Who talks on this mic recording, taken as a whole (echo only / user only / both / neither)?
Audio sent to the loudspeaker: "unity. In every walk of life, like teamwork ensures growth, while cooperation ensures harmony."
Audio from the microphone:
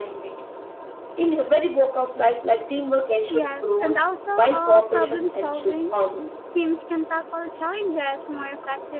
both